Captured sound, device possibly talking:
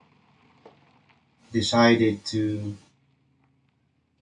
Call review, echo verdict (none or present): none